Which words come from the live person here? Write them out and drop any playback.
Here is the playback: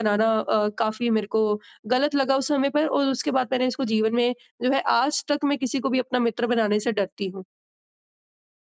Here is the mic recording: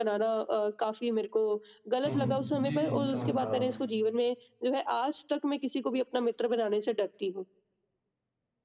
हुँ, हुँ। जी, जी, मैं समझ पा रहा हूँ।

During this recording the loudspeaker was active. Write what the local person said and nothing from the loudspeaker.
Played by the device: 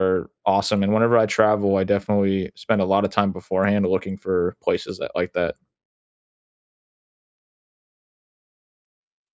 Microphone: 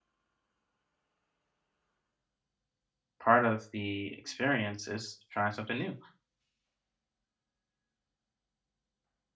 part of the experience is trying something new.

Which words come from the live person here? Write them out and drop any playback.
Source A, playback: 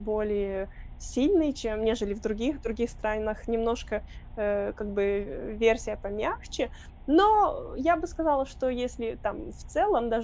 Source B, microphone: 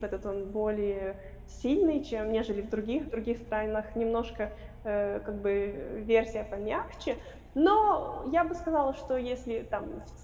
none

